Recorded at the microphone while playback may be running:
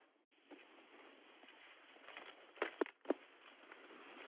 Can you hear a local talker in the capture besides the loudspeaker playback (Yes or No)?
No